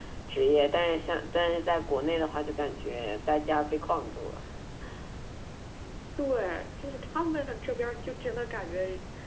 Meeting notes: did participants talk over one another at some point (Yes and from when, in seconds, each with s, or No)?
No